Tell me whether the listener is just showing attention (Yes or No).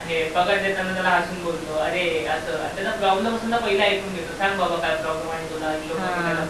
Yes